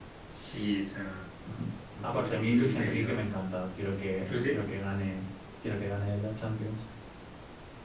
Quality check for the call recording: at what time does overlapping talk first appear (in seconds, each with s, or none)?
2.0 s